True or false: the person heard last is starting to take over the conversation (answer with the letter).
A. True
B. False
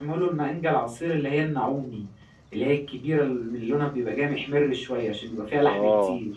A